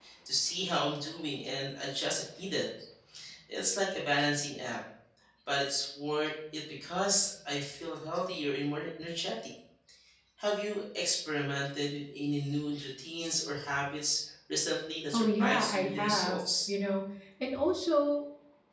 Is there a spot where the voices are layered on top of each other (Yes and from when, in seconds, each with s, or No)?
Yes, from 15.1 s